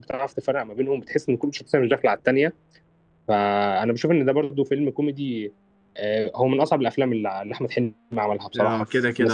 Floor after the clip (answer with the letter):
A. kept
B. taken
B